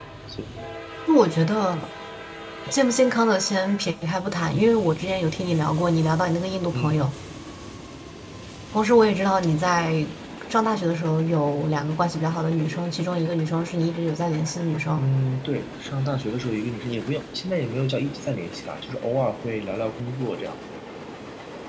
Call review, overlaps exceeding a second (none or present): none